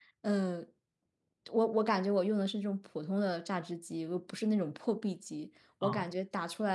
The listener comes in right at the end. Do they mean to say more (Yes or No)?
No